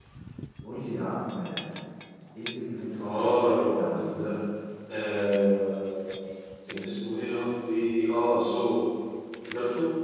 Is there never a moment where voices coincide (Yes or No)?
No